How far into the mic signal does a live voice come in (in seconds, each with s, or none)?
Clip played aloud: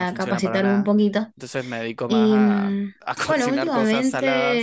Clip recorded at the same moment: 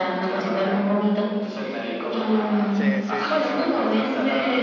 2.7 s